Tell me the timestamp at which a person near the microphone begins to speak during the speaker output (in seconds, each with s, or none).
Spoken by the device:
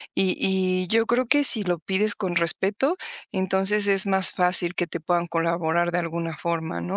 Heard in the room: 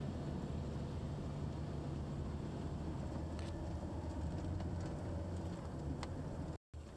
none